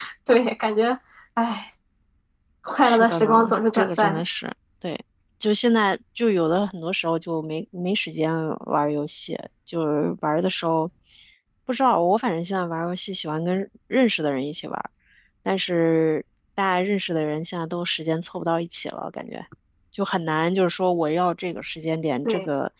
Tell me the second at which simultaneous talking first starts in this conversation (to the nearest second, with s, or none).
3 s